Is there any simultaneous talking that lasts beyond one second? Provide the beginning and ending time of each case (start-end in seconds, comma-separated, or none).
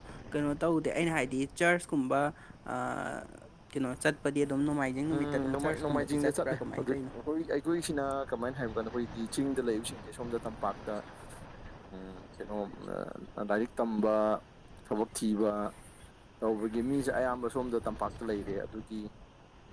5.1-7.0